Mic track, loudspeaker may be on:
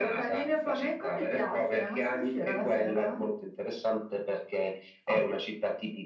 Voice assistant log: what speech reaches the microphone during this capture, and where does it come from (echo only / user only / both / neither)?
echo only